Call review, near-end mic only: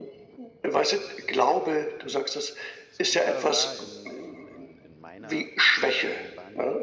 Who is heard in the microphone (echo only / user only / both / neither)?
both